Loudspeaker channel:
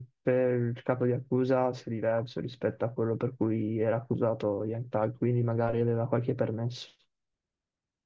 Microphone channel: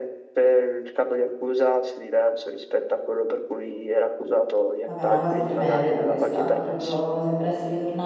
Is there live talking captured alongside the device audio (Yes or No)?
Yes